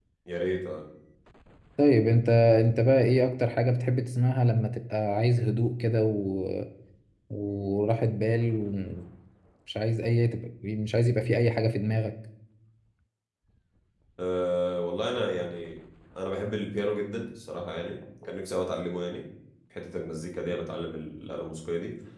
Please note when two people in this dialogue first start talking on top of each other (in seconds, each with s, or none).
none